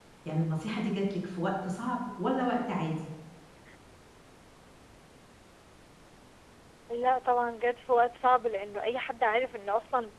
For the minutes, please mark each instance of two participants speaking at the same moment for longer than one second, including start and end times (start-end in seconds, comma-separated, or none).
none